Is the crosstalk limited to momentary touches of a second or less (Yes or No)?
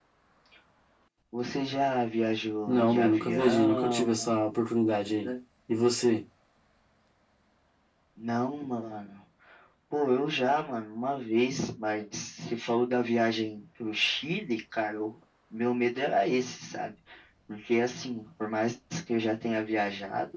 No